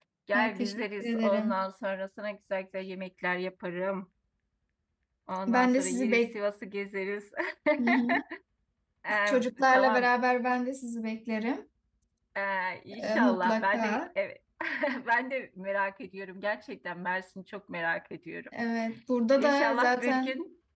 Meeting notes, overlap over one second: present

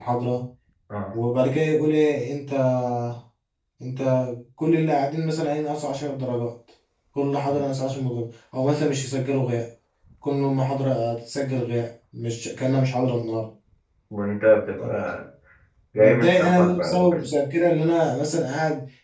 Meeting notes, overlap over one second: present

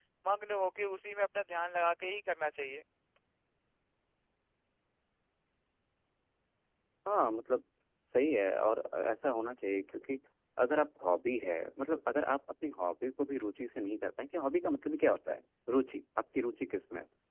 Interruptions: none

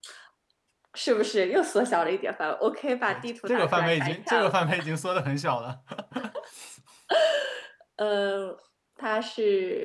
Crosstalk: present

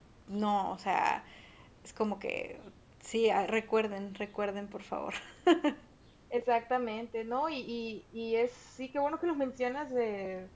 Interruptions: none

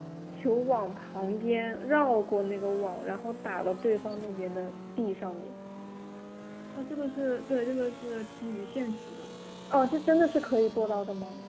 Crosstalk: none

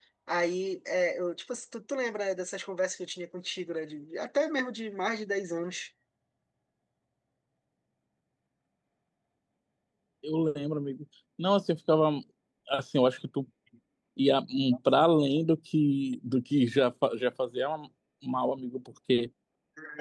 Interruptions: none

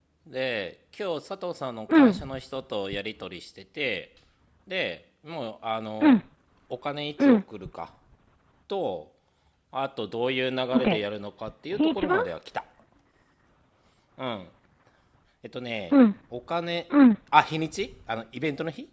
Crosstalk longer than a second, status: none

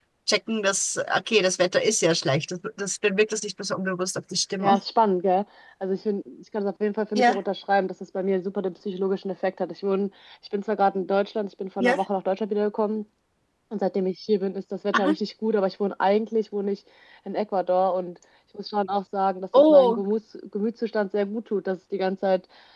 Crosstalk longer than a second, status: none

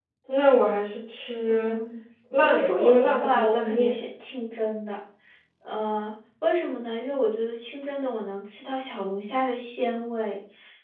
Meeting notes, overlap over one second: present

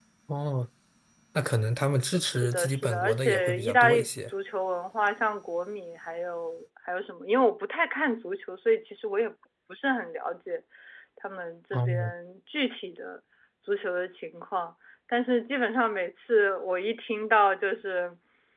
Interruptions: present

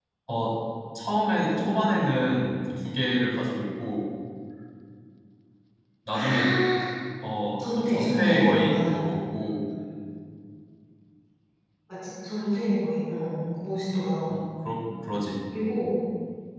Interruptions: present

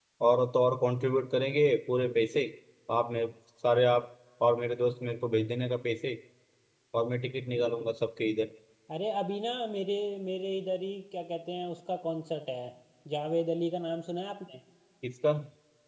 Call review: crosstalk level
none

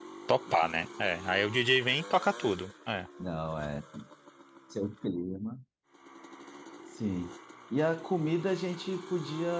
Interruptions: none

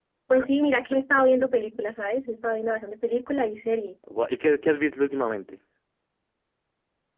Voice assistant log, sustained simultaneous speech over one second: none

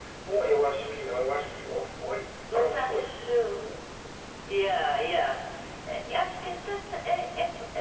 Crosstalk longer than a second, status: none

